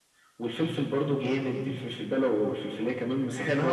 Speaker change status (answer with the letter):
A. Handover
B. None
A